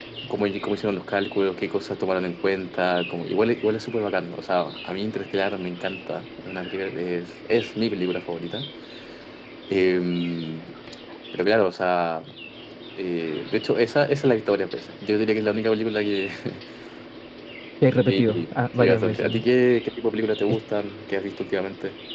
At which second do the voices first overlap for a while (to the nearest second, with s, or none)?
18 s